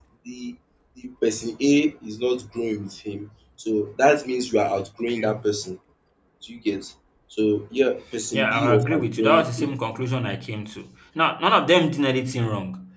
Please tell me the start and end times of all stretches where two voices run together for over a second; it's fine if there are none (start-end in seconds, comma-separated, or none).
8.3-9.7